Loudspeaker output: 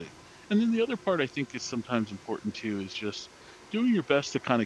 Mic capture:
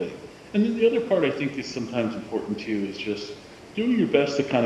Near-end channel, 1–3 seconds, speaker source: echo only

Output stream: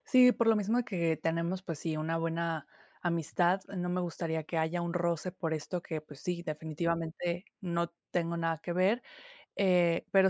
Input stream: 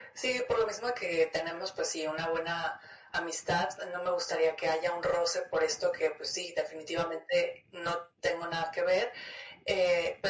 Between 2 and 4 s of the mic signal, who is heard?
echo only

